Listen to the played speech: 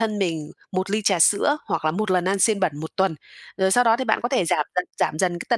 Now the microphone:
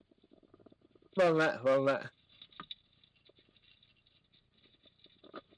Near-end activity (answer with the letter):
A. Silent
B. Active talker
B